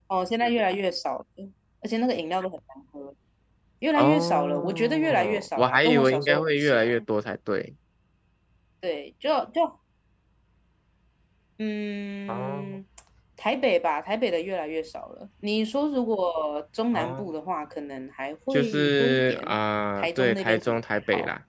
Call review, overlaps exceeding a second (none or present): present